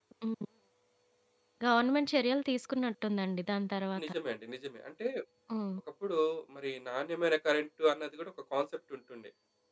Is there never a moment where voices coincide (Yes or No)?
Yes